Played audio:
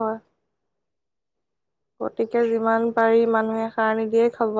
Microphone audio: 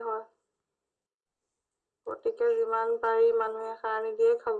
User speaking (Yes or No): No